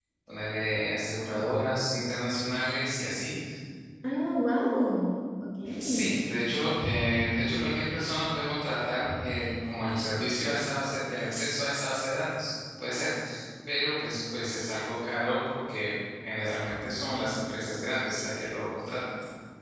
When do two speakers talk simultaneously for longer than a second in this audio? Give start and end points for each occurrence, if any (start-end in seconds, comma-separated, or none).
none